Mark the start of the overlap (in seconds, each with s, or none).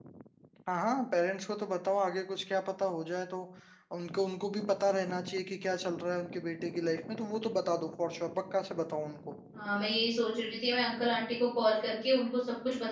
none